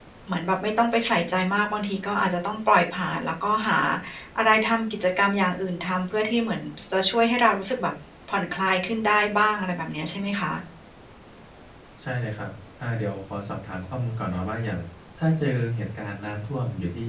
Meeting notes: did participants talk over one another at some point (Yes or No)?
No